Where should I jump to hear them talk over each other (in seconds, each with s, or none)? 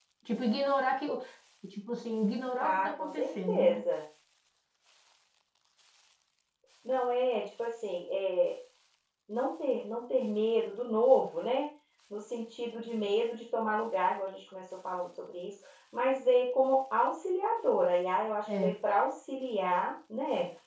2.6 s